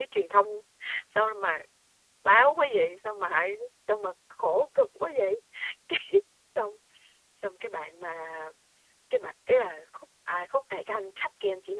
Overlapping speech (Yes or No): No